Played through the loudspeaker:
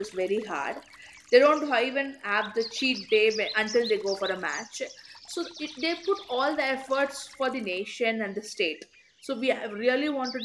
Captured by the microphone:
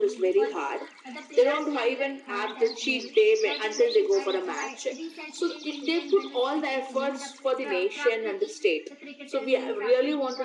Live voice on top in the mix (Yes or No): No